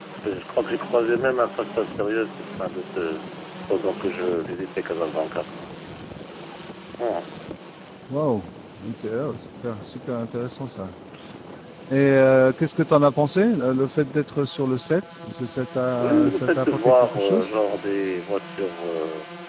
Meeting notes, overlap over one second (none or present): present